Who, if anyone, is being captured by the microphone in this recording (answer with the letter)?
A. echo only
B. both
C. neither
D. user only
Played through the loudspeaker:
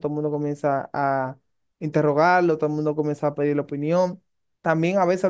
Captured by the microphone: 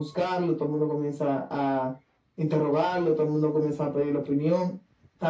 A